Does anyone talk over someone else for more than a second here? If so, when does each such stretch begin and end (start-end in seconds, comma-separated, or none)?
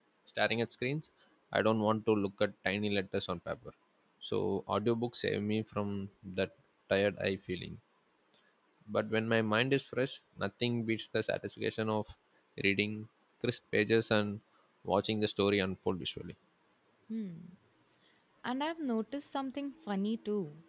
none